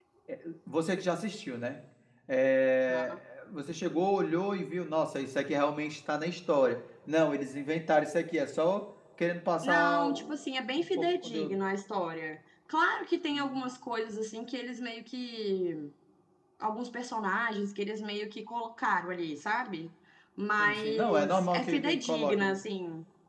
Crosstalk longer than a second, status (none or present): present